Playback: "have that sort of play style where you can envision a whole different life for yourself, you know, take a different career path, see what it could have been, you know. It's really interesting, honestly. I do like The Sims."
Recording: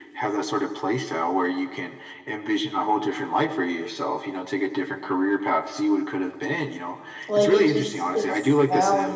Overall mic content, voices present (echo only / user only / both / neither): both